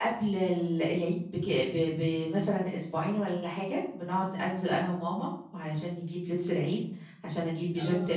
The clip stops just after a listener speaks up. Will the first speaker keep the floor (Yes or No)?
Yes